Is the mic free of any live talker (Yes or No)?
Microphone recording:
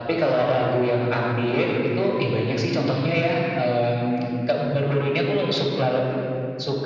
Yes